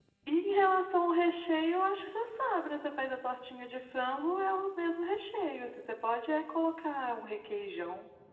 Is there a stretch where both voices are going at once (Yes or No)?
No